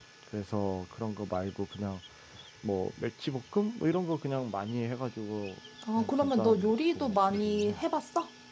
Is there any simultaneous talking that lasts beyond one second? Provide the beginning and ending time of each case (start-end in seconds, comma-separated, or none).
6.0-7.8